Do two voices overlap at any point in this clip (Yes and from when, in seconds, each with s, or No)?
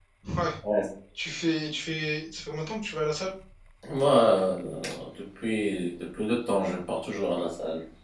No